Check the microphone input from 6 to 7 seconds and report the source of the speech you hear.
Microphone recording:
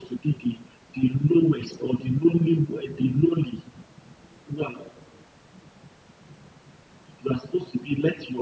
neither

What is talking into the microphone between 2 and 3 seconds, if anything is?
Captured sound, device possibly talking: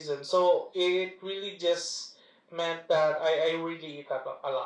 echo only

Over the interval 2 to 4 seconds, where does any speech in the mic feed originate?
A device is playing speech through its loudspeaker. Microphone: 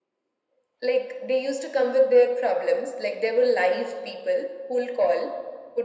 echo only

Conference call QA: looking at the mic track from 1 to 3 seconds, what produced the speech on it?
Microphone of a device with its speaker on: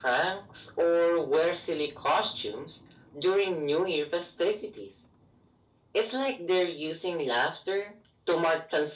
echo only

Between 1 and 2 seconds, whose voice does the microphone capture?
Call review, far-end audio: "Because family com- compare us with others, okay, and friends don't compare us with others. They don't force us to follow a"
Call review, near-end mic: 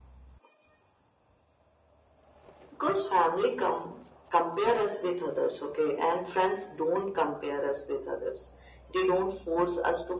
neither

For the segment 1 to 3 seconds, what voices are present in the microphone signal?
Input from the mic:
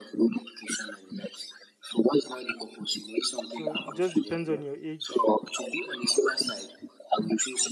echo only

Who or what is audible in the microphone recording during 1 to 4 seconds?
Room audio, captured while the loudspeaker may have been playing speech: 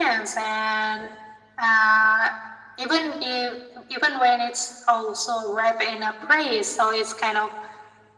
echo only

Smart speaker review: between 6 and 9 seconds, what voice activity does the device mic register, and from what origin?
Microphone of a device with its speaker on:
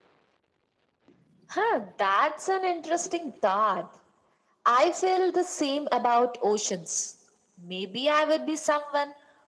echo only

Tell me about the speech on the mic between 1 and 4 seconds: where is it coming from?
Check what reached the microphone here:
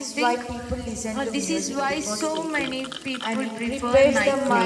both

